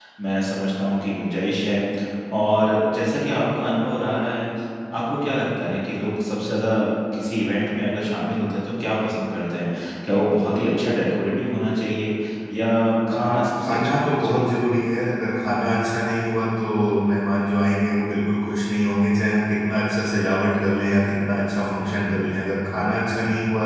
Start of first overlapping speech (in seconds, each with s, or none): 13.1 s